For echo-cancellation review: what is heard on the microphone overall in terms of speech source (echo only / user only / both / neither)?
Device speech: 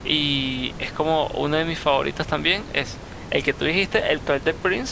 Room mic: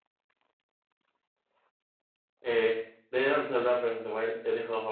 user only